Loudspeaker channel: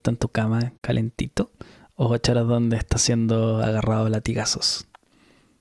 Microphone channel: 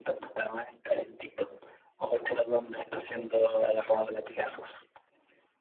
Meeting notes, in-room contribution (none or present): none